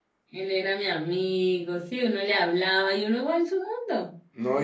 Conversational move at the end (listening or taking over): taking over